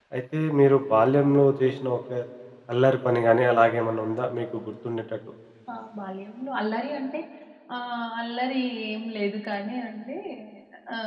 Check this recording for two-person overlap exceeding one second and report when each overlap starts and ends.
none

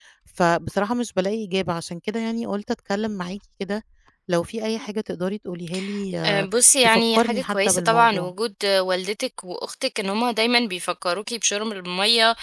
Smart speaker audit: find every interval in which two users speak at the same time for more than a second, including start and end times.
6.8-8.3

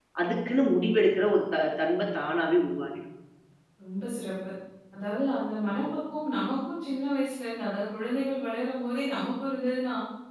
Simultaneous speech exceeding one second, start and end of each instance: none

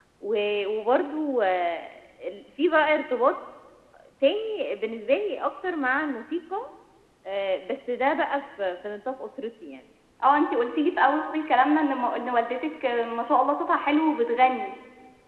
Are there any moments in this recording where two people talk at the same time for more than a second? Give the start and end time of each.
none

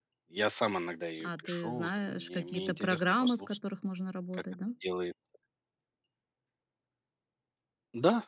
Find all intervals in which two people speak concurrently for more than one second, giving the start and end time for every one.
1.2-3.6

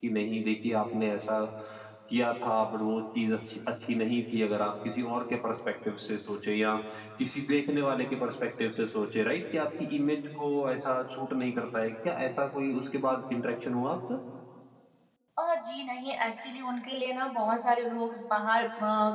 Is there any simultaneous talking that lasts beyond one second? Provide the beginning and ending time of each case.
none

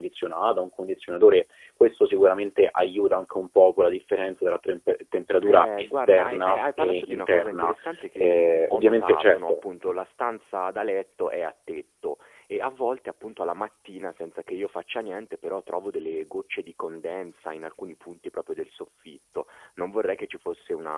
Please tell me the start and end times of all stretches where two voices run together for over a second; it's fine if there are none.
5.5-7.7, 8.2-9.6

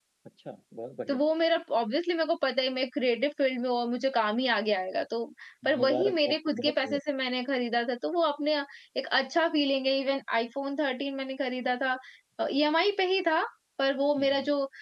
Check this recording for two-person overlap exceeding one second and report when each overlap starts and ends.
5.8-7.0

